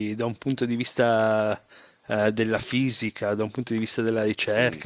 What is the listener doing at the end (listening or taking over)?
listening